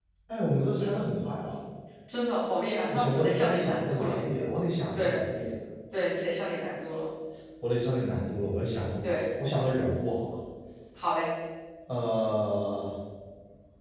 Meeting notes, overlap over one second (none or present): present